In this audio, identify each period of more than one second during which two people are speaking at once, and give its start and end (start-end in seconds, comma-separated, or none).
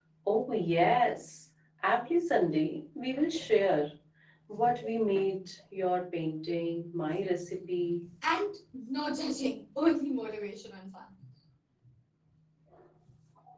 none